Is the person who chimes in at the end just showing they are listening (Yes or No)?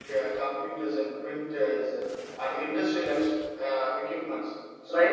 No